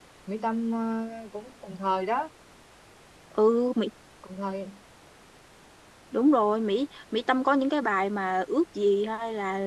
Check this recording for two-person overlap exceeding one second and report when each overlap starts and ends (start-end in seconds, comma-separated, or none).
none